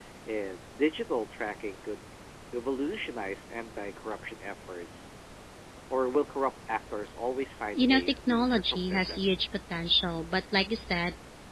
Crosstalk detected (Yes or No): Yes